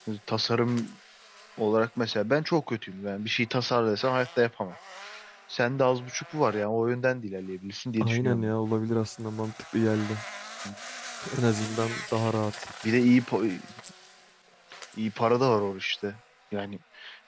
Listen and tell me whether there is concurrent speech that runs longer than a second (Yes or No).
No